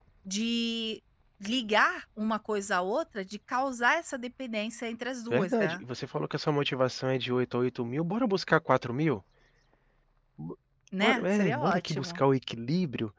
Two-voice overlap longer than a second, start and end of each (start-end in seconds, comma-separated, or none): 11.0-12.2